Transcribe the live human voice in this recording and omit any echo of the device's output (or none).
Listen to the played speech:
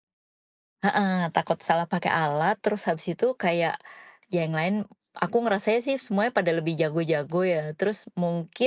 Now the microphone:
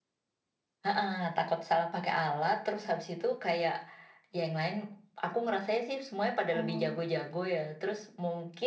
Oh,